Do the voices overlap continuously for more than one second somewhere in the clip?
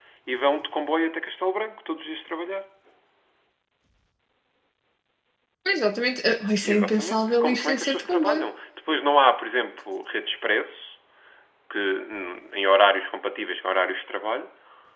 Yes, from 6.6 s

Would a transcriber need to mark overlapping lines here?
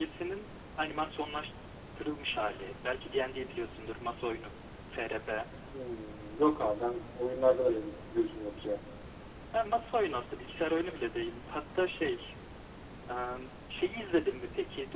No

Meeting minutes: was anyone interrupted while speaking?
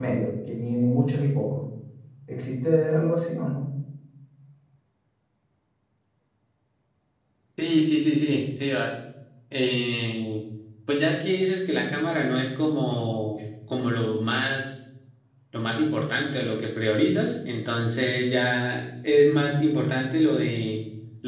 No

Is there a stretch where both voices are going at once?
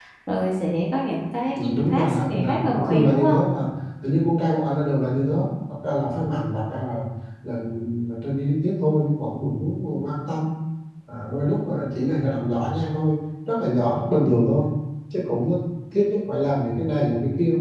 Yes, from 1.5 s

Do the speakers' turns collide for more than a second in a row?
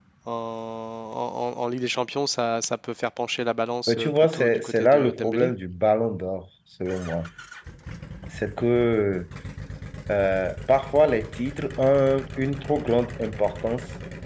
Yes, from 3.9 s

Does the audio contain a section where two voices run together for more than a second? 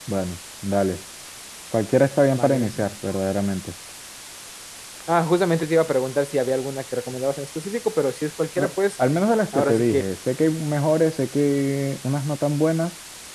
No

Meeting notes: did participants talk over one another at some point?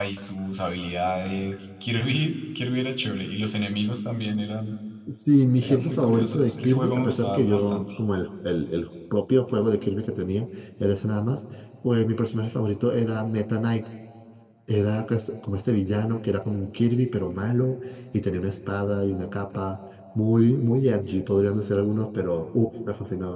Yes, from 5.6 s

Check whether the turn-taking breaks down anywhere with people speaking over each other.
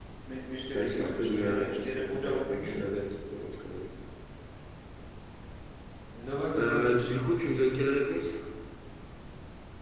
Yes, from 0.7 s

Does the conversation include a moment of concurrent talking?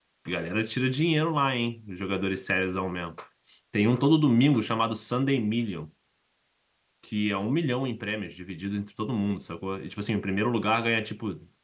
No

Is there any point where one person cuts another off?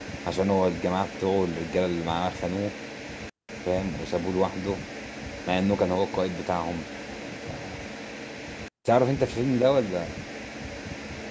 No

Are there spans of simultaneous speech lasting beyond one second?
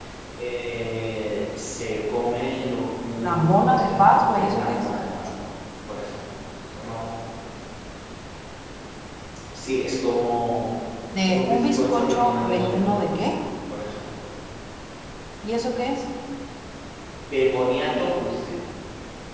Yes, from 3.3 s

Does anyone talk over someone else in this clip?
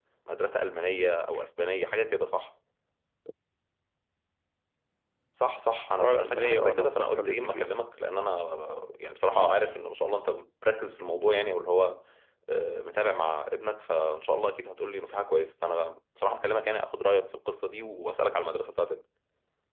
Yes, from 6.0 s

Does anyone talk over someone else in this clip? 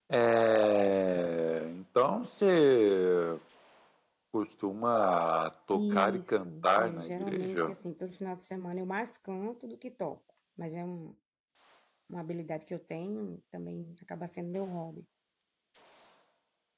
Yes, from 5.7 s

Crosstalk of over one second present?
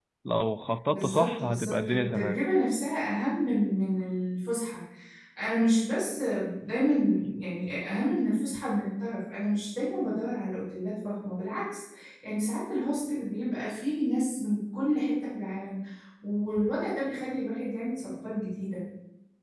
Yes, from 0.9 s

